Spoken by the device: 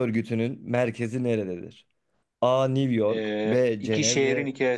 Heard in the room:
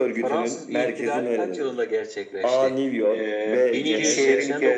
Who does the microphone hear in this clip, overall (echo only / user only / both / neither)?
both